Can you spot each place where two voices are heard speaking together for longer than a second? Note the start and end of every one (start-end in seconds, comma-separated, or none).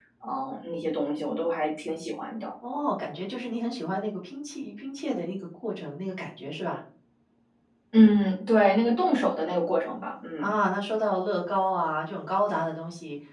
none